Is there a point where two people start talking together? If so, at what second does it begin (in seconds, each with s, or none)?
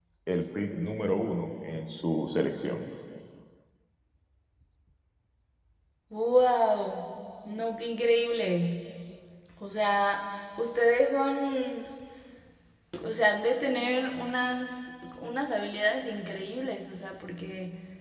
none